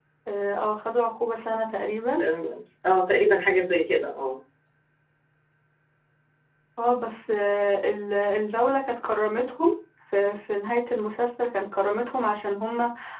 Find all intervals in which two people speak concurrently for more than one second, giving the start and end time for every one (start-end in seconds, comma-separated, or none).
none